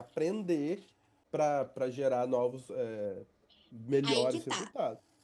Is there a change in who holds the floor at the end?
Yes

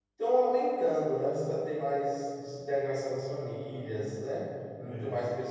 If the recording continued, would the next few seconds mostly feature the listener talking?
No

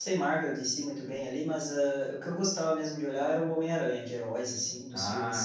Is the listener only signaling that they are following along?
Yes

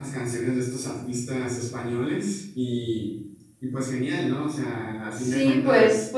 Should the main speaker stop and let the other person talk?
Yes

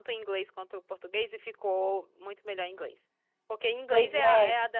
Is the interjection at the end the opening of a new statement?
No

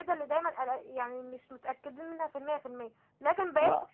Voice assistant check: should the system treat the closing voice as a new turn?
No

